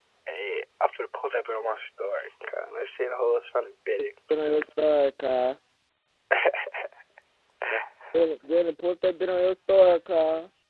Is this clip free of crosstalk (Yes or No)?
Yes